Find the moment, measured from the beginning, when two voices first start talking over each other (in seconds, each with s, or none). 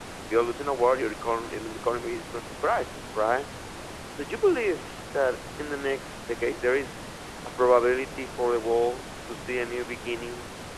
none